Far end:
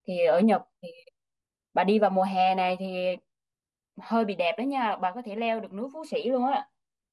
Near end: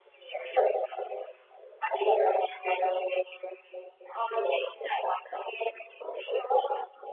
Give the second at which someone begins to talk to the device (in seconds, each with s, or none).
none